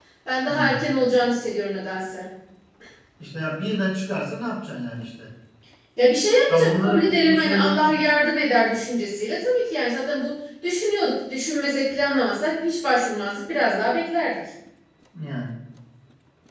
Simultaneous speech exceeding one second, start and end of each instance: 6.5-7.8

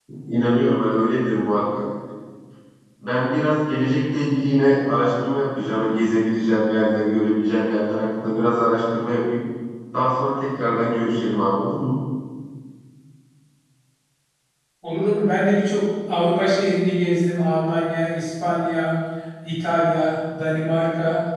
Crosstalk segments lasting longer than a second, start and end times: none

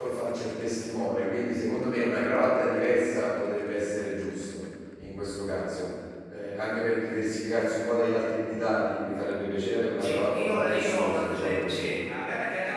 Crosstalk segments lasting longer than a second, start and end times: 10.0-11.9

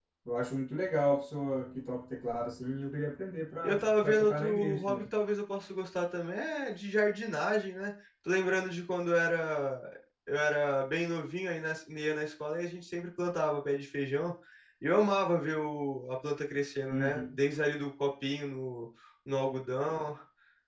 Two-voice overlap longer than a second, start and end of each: 3.6-5.0

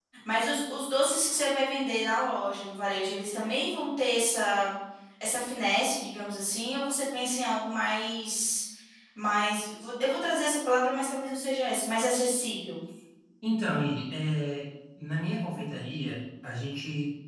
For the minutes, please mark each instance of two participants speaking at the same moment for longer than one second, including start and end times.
none

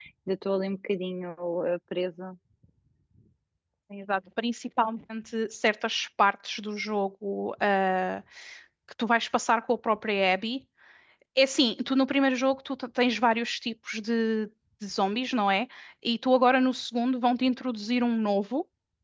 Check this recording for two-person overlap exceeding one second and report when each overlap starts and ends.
none

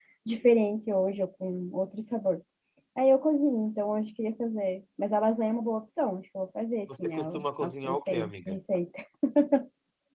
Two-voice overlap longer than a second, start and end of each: 7.0-8.5

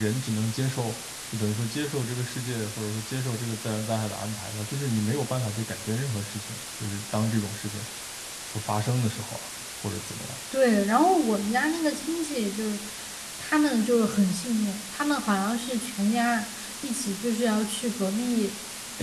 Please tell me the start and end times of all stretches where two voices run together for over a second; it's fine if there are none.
none

